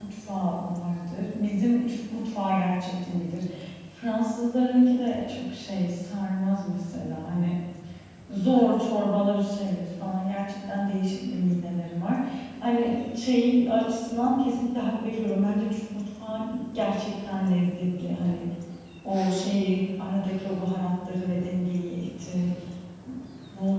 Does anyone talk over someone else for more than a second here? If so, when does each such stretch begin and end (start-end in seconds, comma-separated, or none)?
none